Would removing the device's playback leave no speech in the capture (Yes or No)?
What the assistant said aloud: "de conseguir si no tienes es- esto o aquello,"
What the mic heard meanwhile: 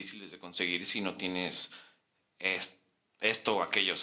Yes